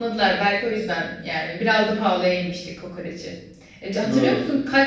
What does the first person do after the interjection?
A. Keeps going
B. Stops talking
A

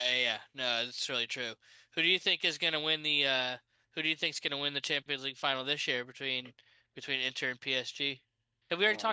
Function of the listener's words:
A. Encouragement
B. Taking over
B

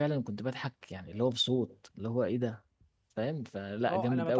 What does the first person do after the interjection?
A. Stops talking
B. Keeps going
A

